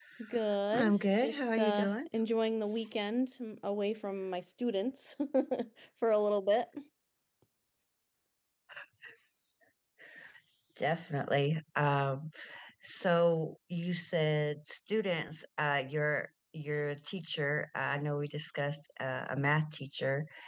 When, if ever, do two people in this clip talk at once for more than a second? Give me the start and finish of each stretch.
0.7-1.9

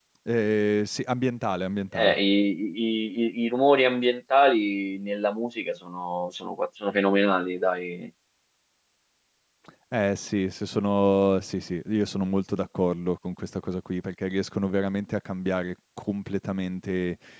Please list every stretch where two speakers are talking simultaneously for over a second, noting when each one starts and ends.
none

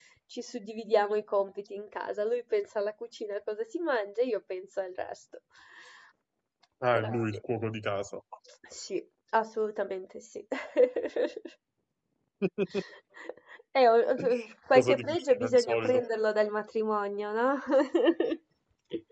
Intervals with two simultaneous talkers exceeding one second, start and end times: 14.8-16.0

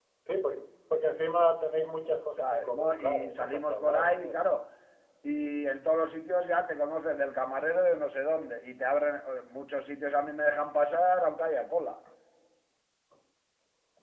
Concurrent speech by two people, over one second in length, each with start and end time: 2.4-4.3

